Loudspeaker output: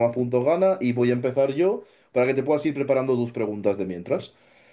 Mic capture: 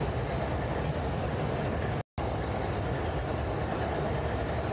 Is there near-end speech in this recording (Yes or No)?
No